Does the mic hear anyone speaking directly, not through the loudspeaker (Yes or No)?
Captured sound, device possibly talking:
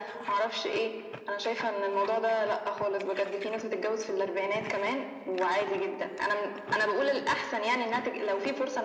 No